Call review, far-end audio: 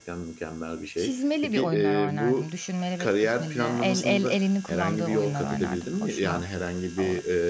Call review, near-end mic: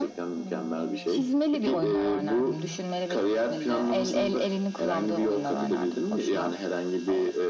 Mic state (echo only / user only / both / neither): both